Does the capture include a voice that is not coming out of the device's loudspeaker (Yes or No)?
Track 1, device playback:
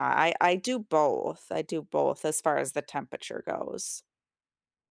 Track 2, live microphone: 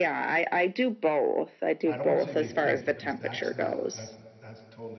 Yes